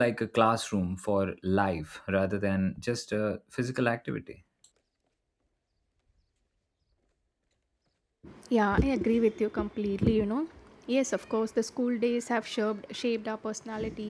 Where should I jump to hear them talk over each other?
none

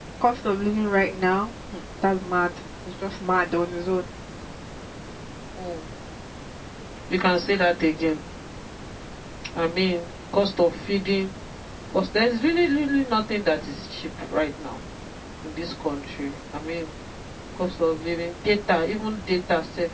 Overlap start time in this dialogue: none

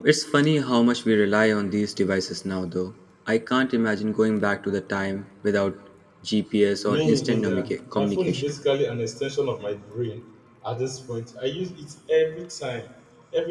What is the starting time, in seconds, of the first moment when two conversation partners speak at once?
6.8 s

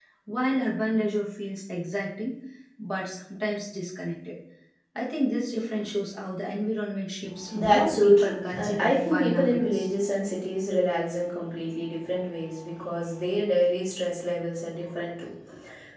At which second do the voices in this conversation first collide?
7.4 s

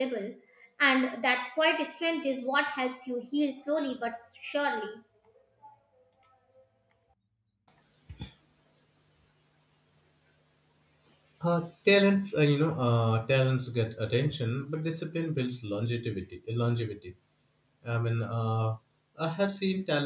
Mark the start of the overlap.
none

